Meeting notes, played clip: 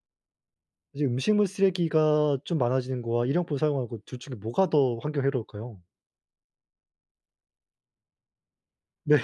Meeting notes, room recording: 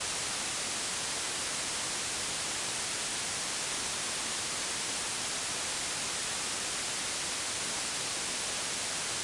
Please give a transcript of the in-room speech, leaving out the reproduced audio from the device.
none

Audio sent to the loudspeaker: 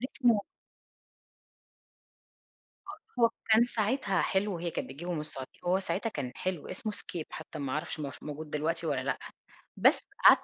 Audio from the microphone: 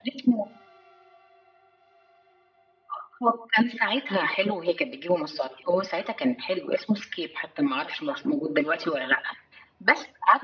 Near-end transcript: none

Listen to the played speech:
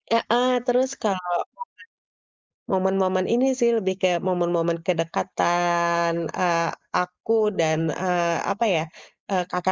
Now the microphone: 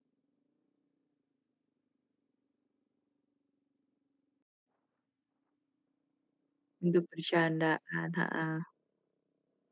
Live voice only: untuk bercandaan, heeh.

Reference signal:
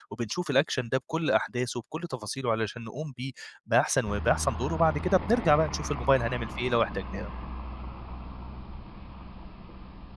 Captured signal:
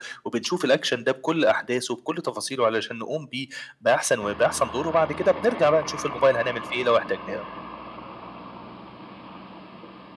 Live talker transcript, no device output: none

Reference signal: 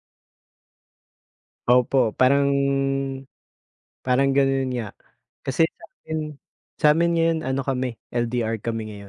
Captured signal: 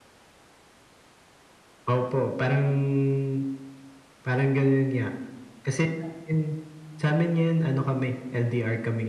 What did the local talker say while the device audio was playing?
none

